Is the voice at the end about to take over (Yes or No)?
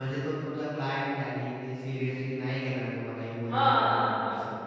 Yes